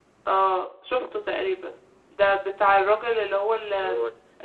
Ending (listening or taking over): listening